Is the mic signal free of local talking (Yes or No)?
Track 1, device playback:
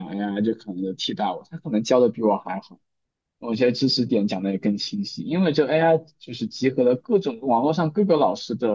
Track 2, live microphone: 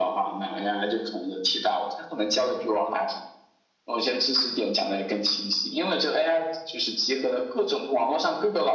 Yes